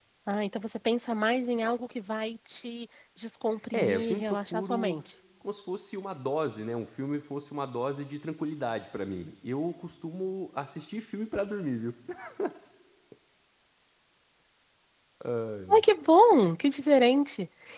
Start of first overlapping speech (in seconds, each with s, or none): 3.7 s